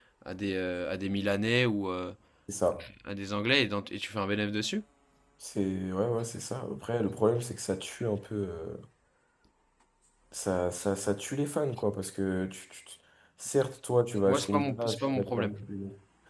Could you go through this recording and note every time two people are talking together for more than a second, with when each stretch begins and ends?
14.2-15.6

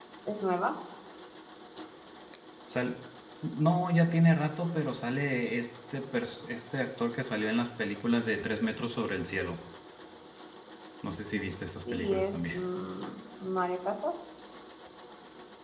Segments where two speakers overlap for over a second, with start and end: 11.3-12.5

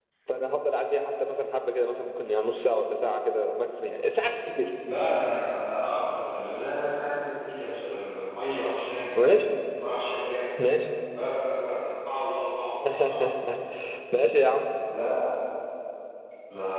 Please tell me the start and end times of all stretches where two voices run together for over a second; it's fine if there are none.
none

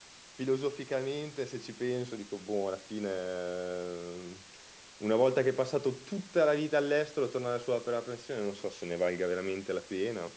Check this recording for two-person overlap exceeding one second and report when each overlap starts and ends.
none

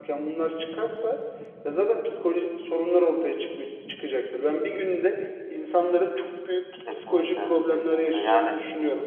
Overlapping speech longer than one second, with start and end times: 6.9-8.6

